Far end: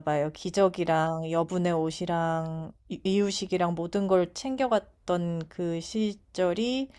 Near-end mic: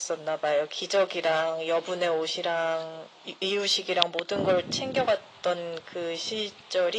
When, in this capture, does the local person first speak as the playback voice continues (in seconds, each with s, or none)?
none